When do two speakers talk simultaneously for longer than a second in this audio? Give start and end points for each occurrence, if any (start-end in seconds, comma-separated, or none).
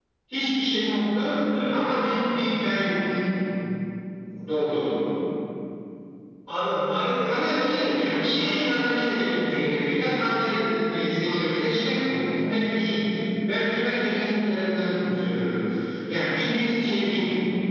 7.3-8.8